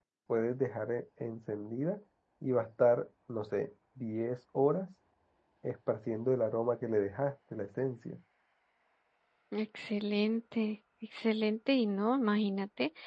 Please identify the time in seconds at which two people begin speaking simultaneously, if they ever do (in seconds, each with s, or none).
none